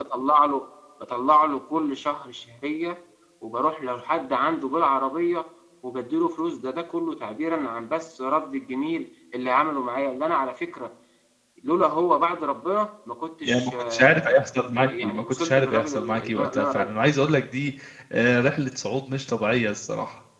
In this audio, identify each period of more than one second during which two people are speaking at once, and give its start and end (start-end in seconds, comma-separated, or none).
13.4-16.9